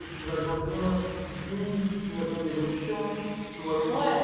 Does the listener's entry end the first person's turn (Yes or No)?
No